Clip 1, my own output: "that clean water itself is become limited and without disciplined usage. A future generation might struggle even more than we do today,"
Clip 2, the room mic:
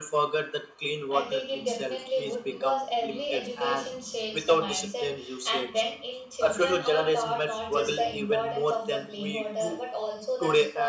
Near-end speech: present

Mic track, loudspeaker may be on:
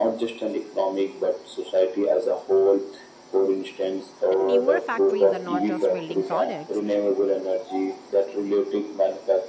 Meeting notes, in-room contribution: present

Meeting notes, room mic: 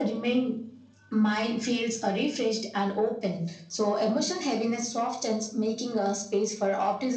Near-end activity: none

